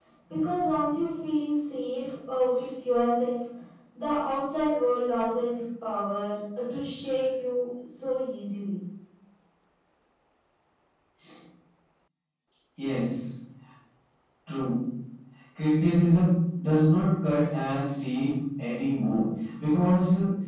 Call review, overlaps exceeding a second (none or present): none